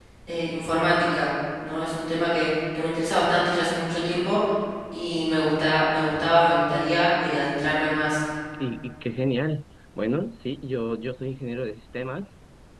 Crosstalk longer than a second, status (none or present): none